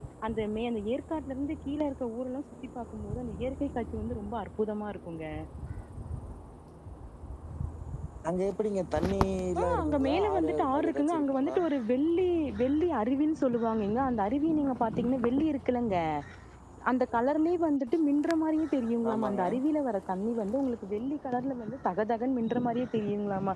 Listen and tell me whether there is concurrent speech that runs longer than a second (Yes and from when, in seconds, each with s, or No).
Yes, from 9.8 s